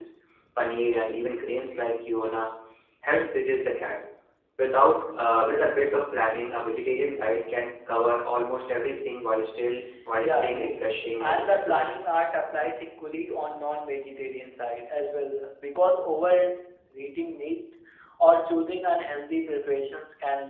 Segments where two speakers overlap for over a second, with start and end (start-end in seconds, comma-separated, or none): 10.2-11.9